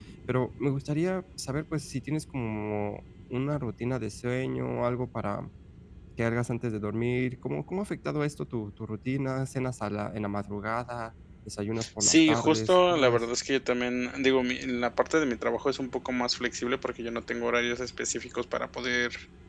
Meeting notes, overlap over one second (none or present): present